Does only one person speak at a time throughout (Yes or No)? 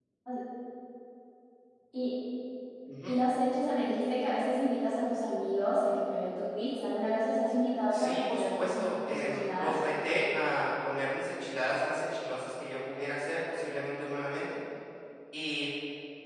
No